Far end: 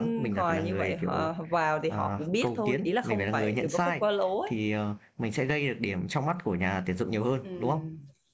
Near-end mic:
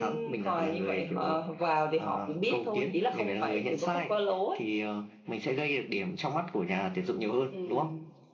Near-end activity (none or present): none